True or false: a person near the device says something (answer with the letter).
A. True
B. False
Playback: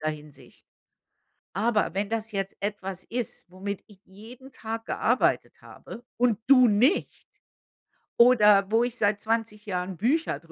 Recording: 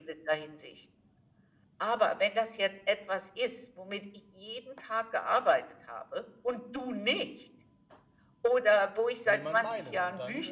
A